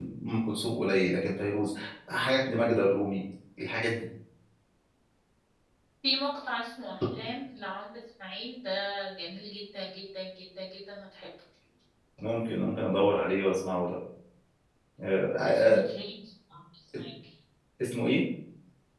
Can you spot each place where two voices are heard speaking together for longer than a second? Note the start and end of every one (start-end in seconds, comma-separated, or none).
none